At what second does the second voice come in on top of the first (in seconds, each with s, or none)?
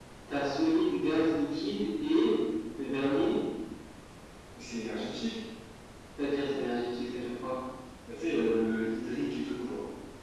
none